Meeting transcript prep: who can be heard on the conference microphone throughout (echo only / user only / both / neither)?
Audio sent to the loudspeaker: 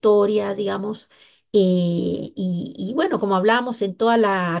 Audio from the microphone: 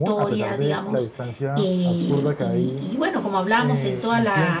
both